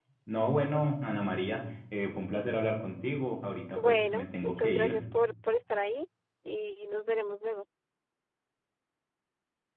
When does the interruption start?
4 s

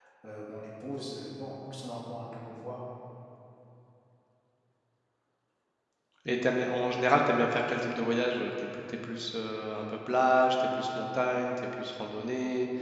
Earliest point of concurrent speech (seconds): none

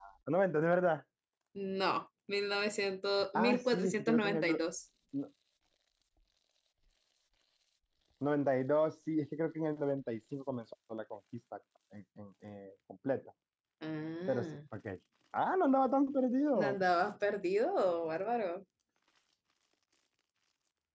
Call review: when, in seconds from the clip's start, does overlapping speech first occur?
3 s

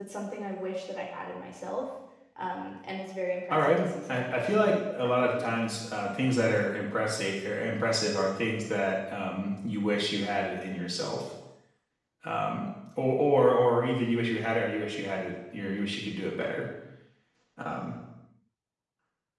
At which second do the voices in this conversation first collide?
3 s

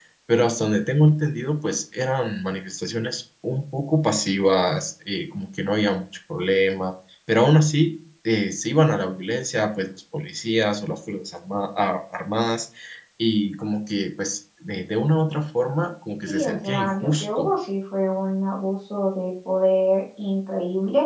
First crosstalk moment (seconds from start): 16 s

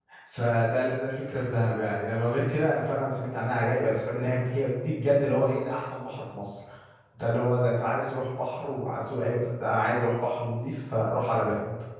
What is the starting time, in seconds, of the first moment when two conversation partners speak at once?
none

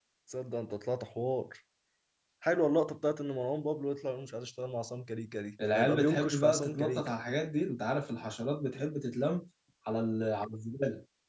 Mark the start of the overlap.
6 s

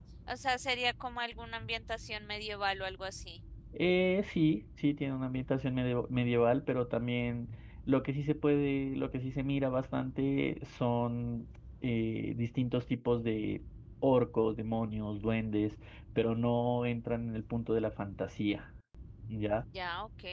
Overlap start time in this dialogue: none

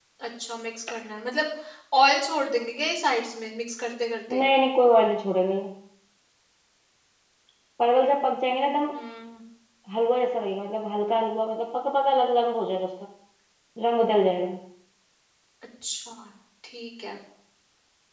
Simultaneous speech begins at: none

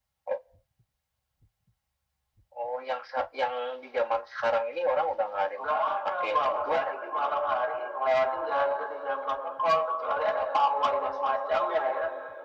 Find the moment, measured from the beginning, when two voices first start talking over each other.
6 s

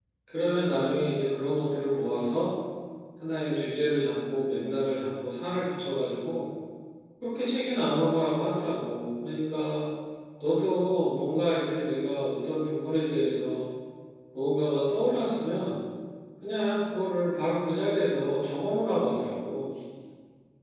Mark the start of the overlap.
none

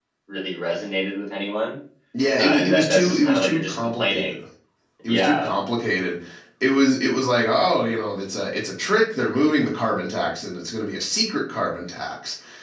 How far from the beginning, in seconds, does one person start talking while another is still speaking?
2 s

